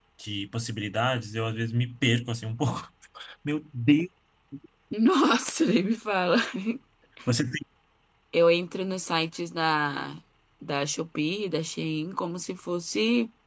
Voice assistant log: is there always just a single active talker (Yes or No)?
Yes